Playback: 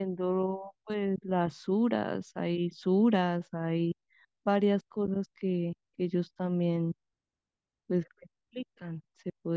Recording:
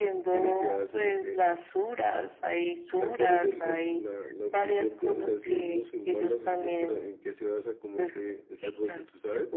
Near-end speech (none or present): present